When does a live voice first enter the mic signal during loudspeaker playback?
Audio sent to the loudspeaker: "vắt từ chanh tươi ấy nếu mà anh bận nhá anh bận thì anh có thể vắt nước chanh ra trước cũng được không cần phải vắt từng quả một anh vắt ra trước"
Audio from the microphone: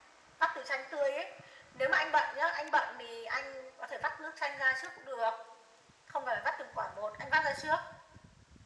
none

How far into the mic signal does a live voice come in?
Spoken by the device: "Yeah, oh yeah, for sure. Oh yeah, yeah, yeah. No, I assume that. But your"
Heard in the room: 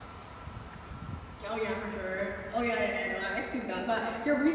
none

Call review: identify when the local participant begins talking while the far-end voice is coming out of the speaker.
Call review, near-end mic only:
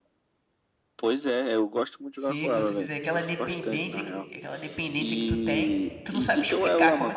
2.1 s

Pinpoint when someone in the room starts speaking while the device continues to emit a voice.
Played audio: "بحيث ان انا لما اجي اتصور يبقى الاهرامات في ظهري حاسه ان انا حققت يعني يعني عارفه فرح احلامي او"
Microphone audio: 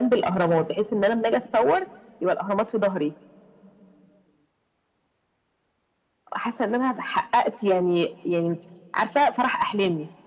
none

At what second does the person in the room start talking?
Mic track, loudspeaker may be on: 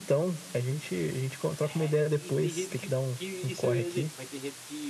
1.6 s

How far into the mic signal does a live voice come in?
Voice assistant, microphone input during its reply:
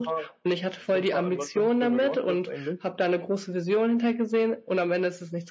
none

